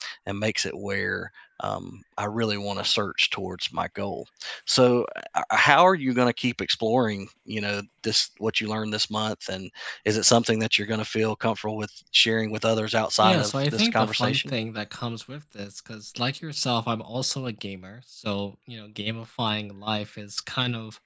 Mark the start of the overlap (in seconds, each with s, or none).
13.2 s